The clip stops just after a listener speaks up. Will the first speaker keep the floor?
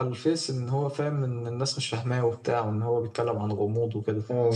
No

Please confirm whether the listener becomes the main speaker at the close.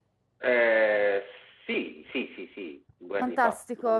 Yes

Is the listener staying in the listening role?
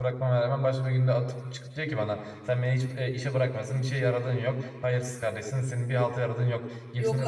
Yes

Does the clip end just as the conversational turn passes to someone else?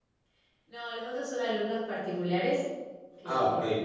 No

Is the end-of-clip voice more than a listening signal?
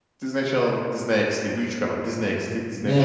Yes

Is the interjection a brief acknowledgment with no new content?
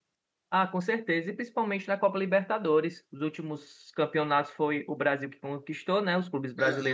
Yes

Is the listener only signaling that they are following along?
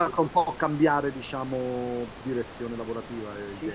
No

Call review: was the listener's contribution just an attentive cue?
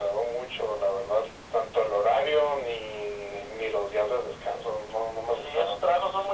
No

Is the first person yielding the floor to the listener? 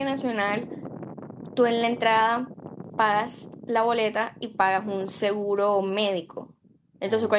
No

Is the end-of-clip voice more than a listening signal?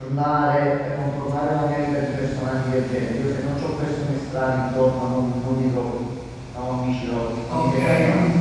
Yes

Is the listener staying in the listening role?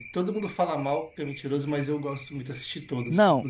No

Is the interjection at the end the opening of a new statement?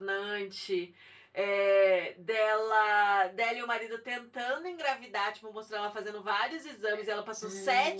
No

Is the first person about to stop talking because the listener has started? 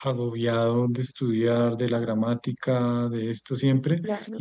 No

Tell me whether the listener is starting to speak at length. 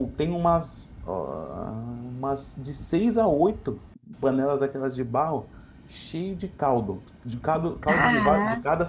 No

